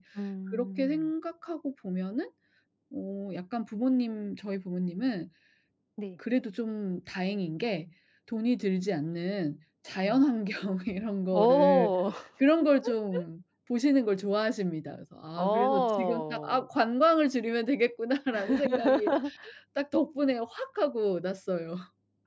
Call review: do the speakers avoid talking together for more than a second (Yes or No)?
No